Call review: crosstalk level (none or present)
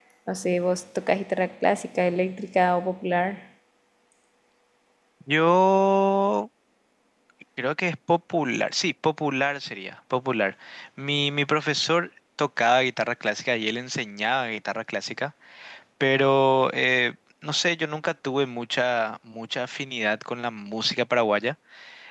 none